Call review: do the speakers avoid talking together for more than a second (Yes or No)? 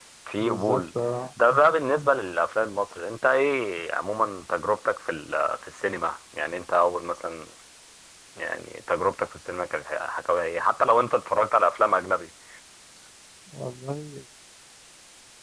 Yes